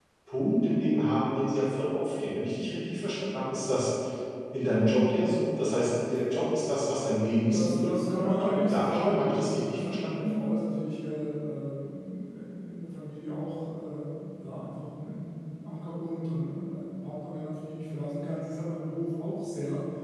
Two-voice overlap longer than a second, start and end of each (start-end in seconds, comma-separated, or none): 7.5-10.4